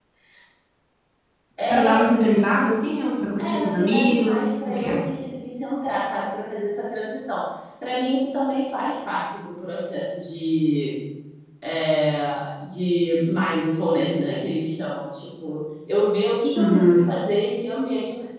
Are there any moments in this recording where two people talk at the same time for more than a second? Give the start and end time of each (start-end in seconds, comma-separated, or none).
3.4-4.9